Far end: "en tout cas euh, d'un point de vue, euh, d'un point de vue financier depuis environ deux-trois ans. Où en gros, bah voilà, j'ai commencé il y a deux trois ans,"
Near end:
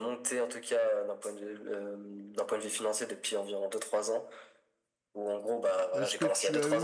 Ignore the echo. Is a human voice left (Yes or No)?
Yes